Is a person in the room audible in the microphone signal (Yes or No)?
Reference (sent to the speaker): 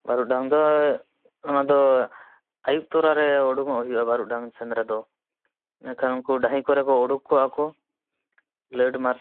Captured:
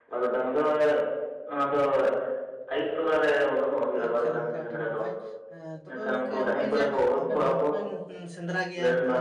Yes